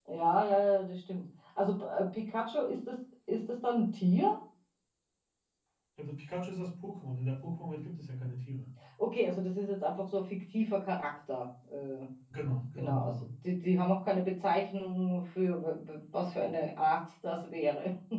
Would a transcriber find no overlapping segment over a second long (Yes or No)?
Yes